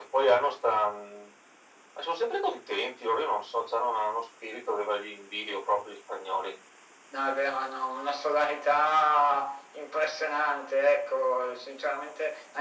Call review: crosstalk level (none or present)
none